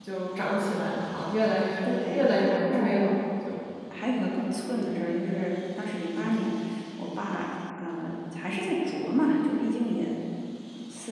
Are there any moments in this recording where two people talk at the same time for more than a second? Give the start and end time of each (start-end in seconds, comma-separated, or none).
1.8-3.1